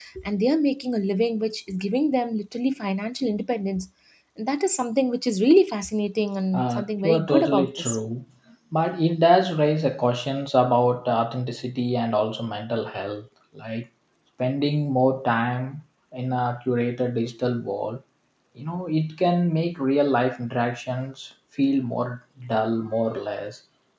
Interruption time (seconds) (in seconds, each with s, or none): 6.5 s